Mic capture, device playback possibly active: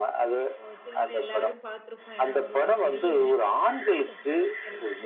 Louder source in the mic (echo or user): echo